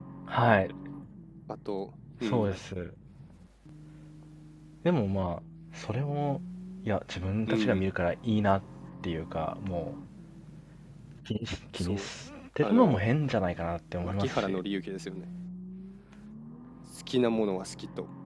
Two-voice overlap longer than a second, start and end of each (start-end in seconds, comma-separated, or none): none